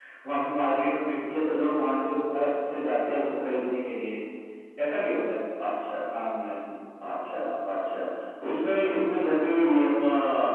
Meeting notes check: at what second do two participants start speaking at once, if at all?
none

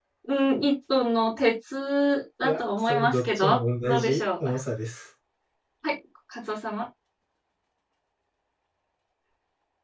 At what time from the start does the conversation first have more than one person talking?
2 s

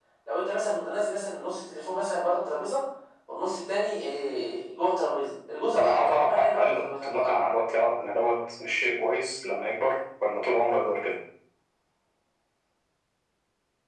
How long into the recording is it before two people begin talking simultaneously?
6 s

